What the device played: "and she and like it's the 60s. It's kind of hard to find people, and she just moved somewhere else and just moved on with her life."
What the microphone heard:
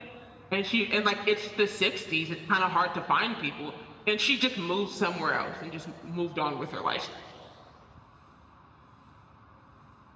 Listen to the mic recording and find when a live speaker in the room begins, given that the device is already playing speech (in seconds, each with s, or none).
none